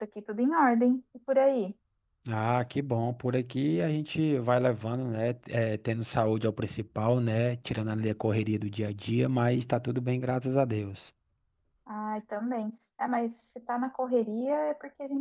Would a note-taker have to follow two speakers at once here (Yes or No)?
No